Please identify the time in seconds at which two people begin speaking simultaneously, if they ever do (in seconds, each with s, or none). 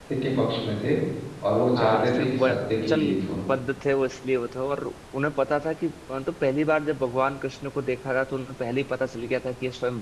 1.7 s